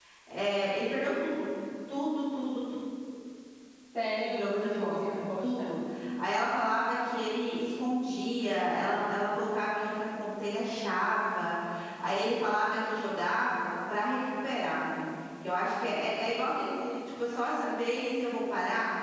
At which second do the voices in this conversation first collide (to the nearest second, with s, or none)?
4 s